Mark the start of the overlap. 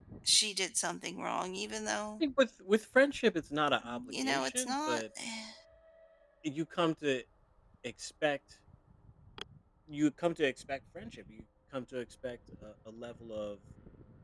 4 s

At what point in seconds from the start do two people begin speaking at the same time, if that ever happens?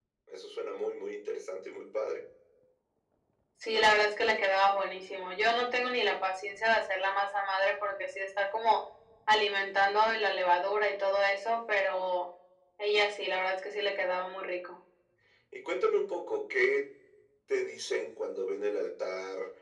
none

